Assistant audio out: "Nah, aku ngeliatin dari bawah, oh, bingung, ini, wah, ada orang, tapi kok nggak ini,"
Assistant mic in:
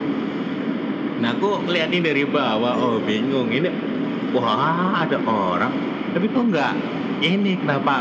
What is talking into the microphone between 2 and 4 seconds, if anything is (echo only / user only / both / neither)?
both